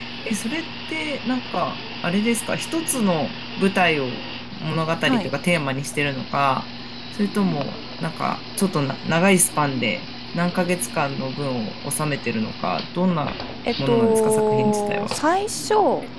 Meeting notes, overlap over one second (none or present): present